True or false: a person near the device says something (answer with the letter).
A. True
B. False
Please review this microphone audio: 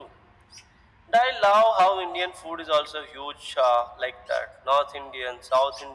B